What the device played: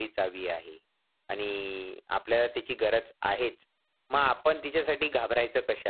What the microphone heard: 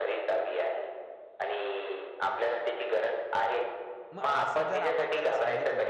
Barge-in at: 4.2 s

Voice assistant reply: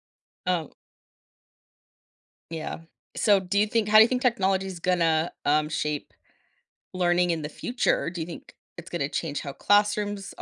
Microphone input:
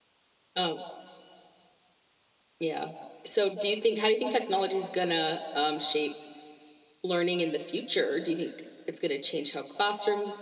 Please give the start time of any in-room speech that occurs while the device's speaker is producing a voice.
none

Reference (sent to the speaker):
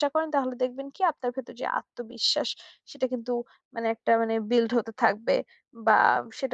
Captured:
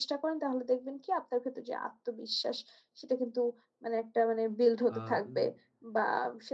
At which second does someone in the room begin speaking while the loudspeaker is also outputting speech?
5.0 s

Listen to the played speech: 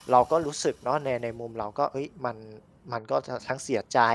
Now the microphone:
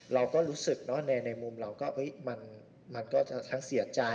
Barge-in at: none

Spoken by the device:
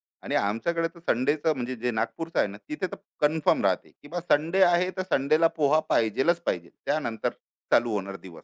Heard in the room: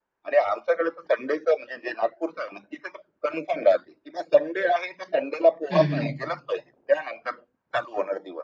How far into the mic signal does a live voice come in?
5.7 s

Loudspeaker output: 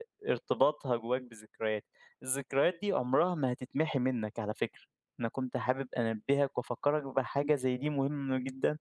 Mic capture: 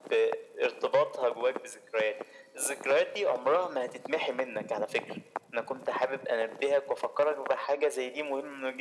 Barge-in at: none

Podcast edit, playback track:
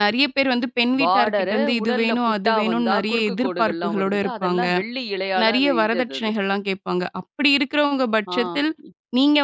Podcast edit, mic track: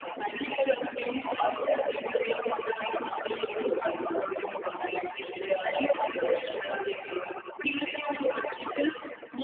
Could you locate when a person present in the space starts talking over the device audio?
none

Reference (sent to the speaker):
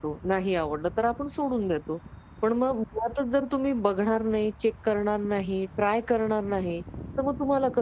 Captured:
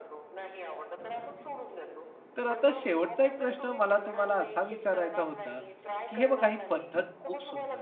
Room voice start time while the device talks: 2.4 s

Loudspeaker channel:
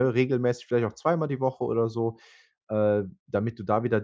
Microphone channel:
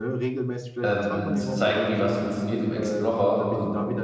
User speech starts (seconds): 0.8 s

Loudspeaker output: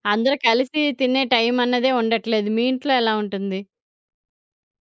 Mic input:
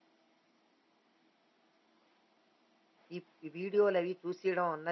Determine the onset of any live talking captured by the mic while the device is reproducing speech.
3.1 s

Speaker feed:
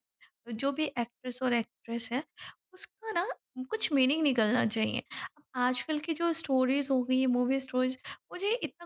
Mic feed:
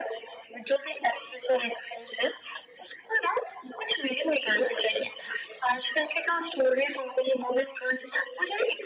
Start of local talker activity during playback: none

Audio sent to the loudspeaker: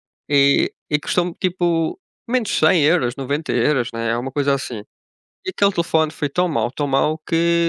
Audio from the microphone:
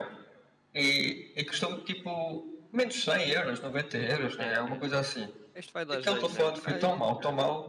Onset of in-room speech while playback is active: 4.4 s

